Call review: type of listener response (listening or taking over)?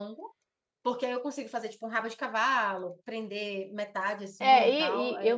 taking over